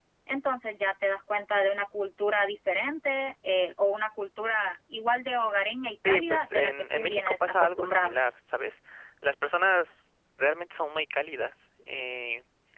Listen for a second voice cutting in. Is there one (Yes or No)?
Yes